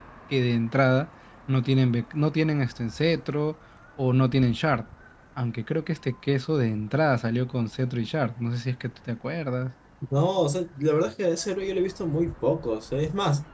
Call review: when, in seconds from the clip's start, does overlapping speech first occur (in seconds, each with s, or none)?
none